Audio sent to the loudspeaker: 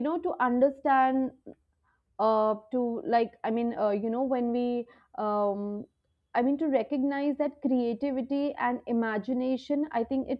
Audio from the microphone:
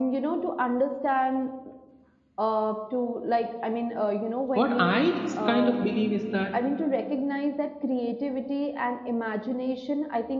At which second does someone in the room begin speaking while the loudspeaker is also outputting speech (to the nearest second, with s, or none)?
5 s